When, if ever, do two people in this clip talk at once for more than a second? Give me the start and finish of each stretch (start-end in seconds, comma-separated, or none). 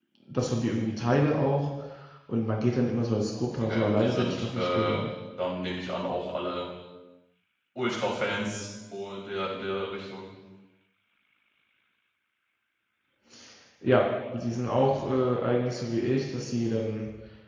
3.5-5.0